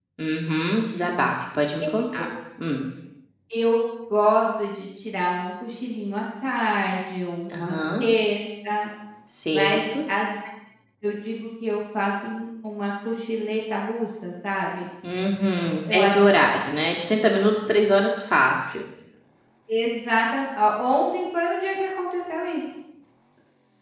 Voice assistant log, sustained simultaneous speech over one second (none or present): none